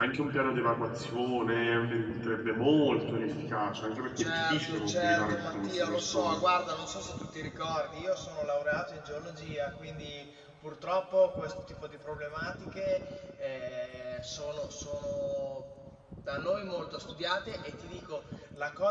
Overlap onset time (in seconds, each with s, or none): 4.2 s